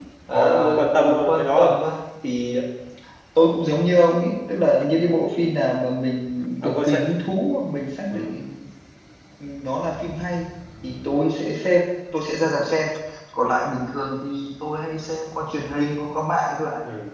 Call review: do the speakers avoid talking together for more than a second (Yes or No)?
No